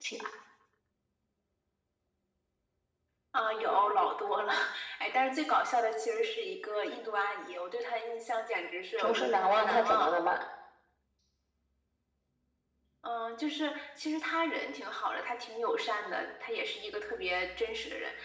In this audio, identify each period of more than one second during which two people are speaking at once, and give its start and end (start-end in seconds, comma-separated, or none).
9.0-10.2